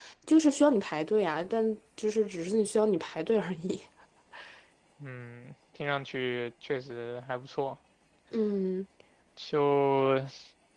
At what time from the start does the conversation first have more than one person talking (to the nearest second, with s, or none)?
none